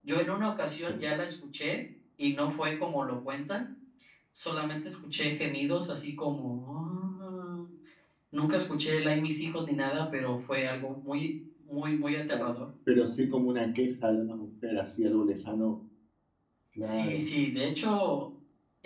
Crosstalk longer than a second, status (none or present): none